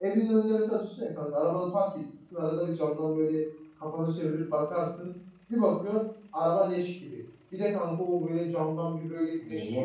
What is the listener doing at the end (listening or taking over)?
listening